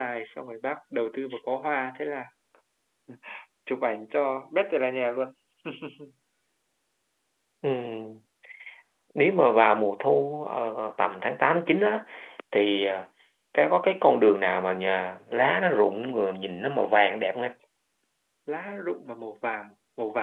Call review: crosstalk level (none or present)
none